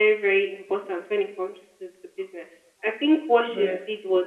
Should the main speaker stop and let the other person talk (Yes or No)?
No